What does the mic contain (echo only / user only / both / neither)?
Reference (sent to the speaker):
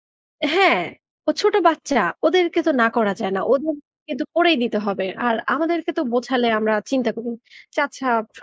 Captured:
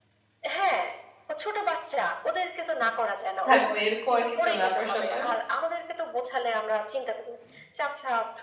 both